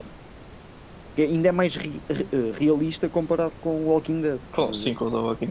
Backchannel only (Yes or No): No